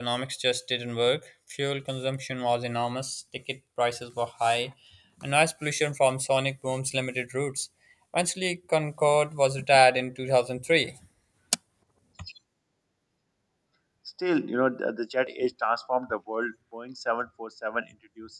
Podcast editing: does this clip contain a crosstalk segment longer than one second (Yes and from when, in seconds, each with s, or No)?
No